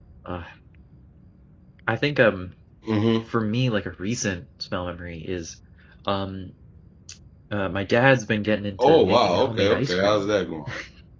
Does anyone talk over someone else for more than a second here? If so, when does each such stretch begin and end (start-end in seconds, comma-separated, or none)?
8.8-10.3